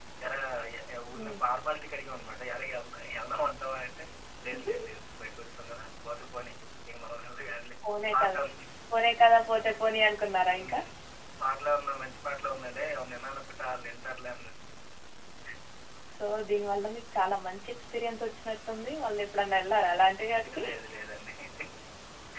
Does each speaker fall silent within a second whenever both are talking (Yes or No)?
Yes